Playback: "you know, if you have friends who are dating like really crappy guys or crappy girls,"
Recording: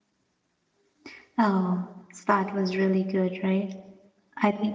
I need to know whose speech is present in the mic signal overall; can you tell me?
user only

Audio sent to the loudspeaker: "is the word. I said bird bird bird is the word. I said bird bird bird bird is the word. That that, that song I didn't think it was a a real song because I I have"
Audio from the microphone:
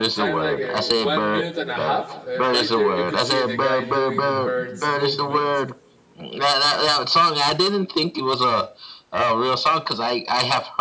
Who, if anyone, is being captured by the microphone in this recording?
both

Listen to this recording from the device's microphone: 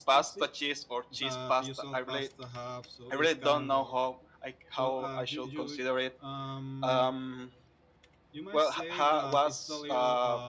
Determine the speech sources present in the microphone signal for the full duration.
both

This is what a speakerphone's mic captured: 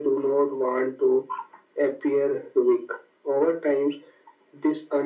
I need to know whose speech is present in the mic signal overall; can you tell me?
echo only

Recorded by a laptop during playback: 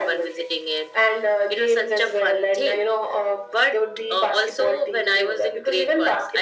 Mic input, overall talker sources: echo only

